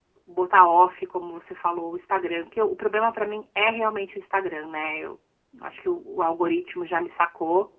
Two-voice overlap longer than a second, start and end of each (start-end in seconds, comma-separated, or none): none